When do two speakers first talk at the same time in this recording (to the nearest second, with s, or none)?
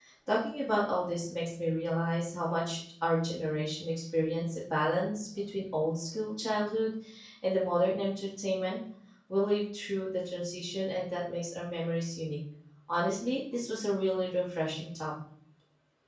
none